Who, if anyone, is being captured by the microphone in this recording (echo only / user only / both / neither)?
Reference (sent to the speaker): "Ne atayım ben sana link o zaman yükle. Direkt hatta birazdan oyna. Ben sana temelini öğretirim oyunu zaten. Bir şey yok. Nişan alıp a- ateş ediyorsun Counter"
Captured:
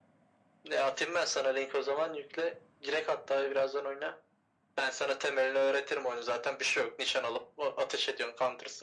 echo only